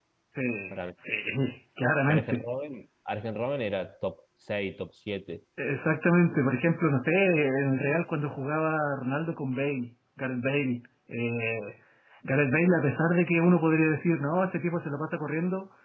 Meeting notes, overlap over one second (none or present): none